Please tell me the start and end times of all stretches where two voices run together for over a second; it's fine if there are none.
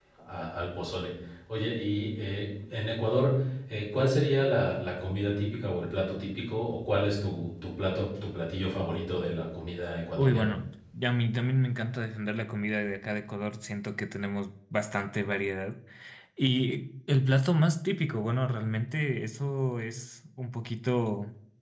none

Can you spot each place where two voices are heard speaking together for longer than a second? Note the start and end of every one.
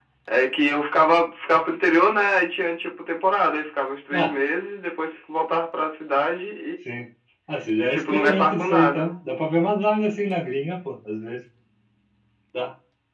7.8-9.1

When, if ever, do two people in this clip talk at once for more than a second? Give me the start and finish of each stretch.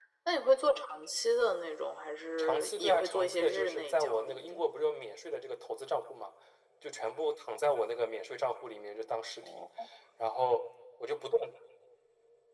2.4-4.6

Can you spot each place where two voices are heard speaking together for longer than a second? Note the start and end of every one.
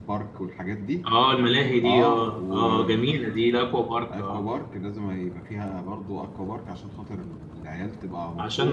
1.8-3.1

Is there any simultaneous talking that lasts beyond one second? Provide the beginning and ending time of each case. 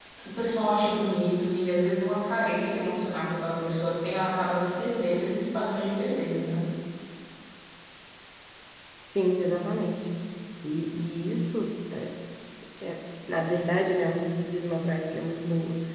none

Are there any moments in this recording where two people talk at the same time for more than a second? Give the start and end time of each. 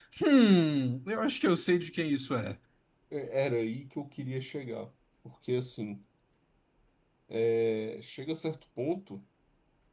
none

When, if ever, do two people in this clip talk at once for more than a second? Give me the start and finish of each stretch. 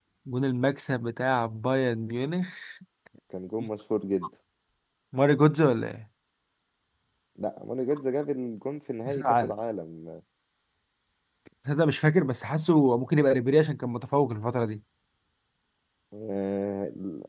none

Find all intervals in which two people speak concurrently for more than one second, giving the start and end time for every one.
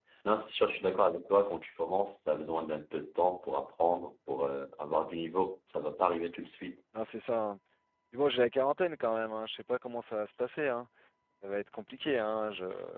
none

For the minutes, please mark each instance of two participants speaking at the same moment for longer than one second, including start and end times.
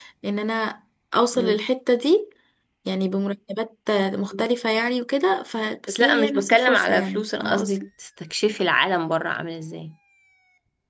5.9-7.7

